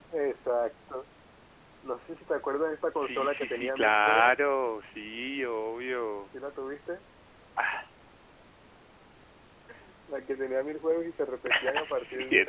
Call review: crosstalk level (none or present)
present